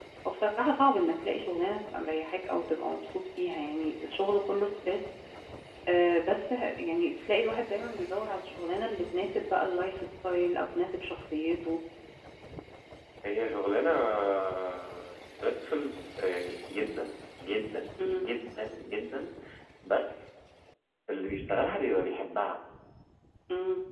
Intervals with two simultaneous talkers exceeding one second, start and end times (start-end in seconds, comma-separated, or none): none